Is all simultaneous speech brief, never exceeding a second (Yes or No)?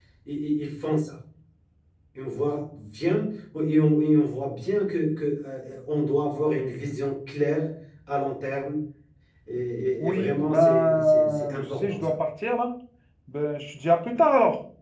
No